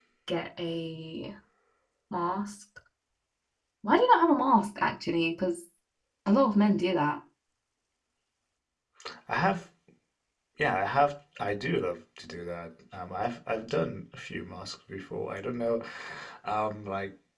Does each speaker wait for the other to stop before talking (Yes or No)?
Yes